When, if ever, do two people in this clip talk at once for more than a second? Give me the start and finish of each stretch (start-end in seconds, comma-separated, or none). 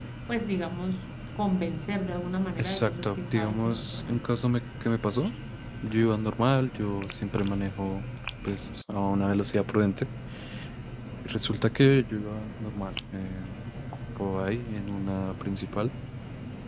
2.6-4.4